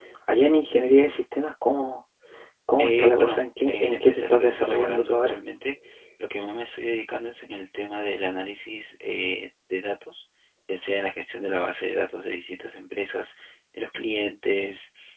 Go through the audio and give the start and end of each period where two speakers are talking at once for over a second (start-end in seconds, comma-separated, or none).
2.8-5.4